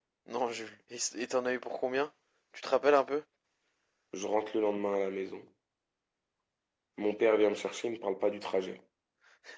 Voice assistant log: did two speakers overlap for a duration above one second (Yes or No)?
No